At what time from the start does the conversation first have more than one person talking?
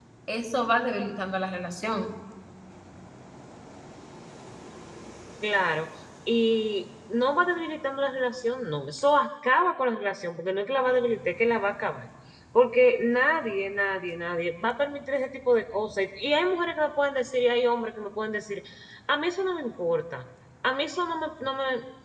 none

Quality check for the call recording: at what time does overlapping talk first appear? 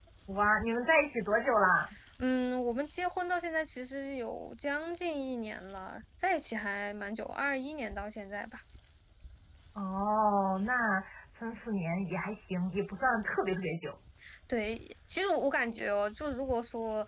none

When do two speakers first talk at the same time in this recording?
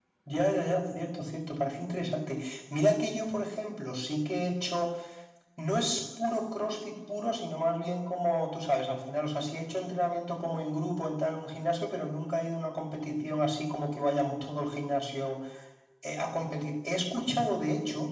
none

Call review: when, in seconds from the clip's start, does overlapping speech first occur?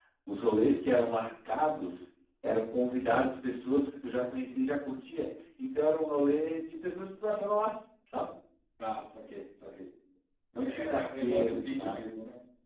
10.6 s

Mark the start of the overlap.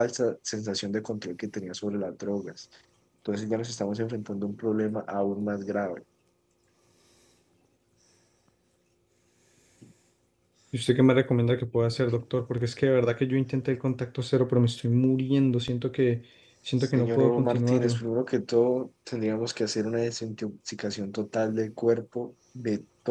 16.8 s

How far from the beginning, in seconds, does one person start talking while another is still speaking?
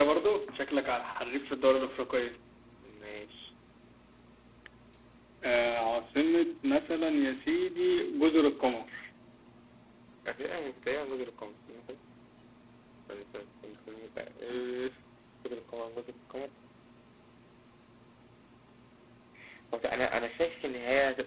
none

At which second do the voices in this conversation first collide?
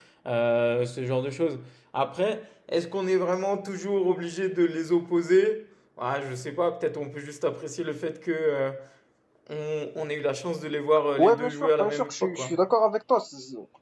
11.2 s

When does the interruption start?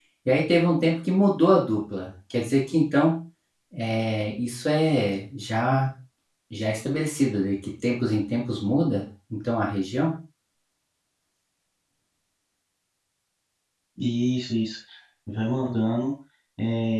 none

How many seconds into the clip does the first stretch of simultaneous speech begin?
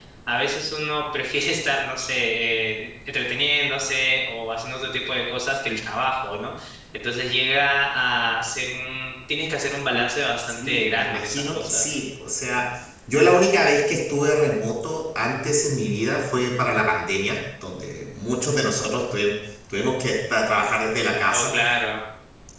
10.5 s

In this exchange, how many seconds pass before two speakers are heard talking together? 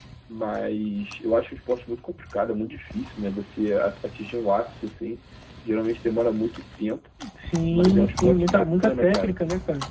7.7 s

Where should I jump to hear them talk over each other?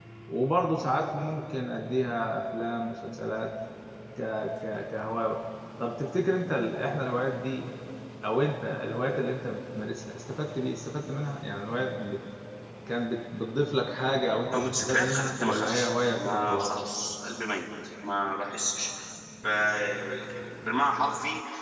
14.5 s

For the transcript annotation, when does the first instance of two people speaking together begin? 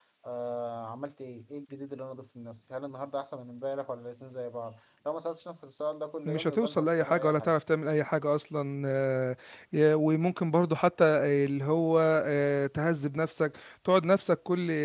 6.2 s

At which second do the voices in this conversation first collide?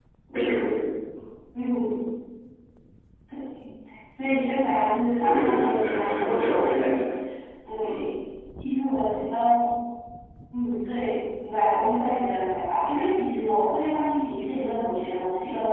5.2 s

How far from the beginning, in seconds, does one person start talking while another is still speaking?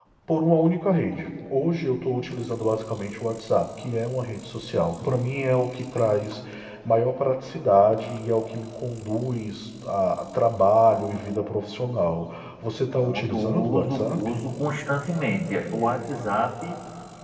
13.0 s

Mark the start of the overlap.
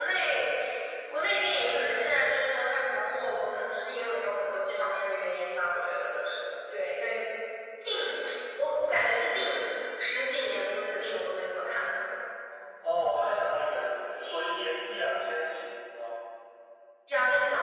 none

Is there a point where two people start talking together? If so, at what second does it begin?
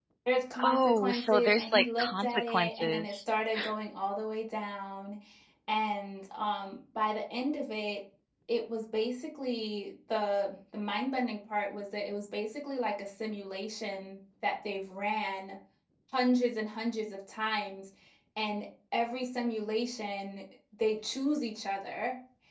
0.6 s

